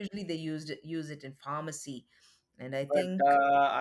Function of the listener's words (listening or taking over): taking over